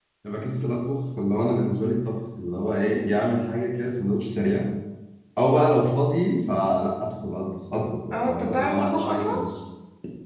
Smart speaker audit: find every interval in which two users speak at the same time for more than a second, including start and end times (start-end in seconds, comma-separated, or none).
8.1-9.3